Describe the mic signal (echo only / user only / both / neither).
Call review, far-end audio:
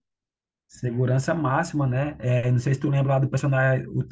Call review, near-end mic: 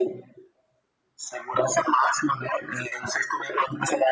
echo only